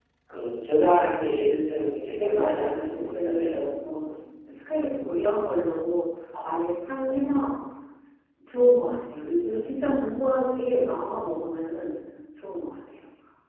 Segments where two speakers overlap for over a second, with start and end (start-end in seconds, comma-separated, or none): 2.1-3.6